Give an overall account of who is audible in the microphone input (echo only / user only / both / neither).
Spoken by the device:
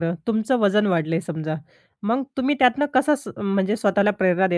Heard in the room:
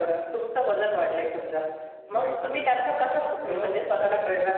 both